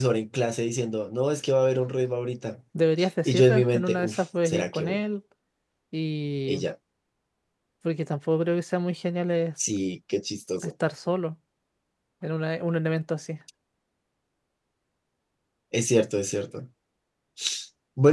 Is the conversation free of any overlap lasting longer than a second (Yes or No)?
No